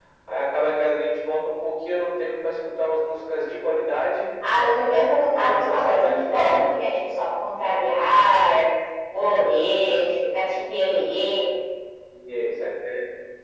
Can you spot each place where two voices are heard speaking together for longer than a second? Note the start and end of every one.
5.4-6.7

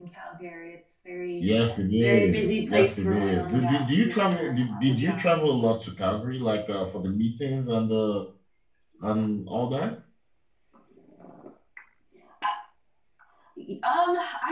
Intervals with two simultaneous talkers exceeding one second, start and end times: 2.0-5.3

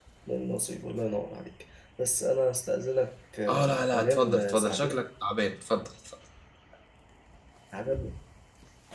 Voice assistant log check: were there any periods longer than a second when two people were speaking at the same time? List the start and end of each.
3.5-5.0

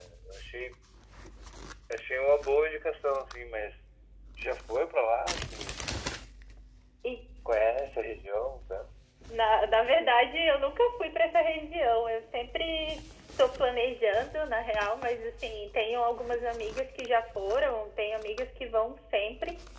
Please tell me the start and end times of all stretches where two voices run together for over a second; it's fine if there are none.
none

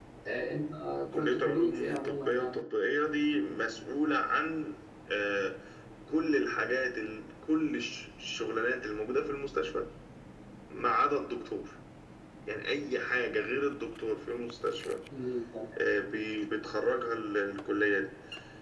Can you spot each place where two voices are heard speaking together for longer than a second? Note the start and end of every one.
1.1-2.6

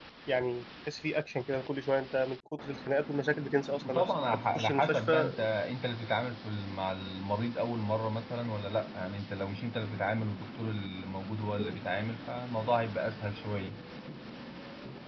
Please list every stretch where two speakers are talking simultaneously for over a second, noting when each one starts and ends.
3.9-5.3

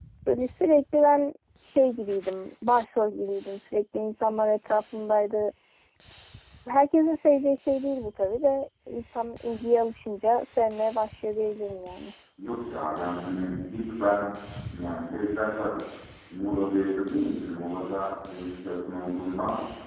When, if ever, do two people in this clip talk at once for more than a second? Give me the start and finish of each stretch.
none

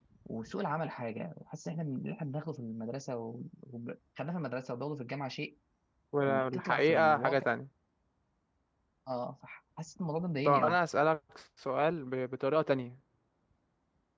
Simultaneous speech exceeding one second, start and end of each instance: 6.2-7.5

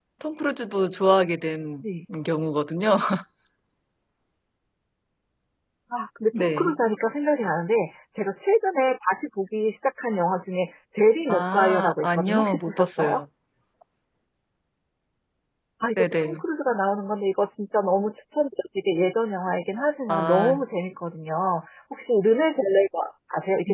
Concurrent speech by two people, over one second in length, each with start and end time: 11.3-13.2

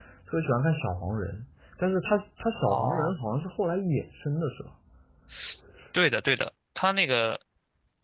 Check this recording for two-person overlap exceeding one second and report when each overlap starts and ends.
none

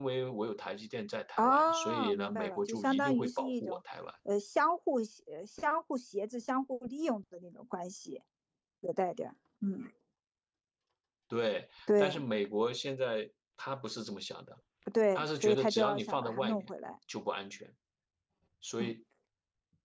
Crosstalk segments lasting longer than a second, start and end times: 1.4-3.8, 15.2-16.7

